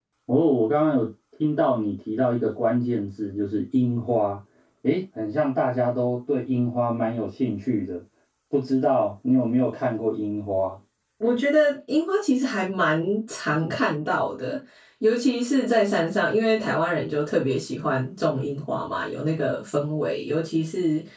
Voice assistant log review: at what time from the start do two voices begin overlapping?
none

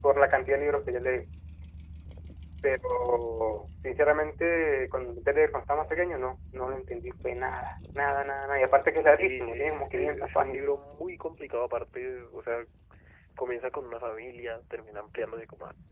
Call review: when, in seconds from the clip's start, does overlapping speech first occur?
9.2 s

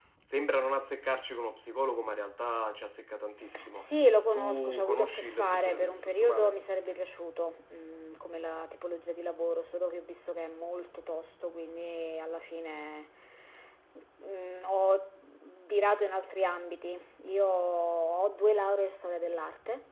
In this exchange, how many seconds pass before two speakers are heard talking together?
3.5 s

